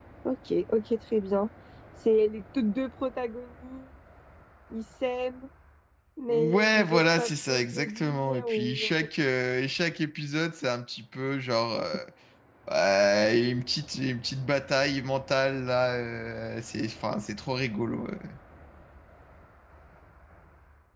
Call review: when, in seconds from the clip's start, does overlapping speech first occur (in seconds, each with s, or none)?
6.3 s